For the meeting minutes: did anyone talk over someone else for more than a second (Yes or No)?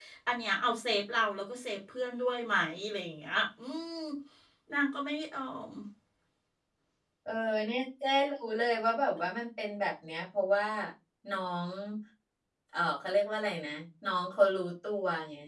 No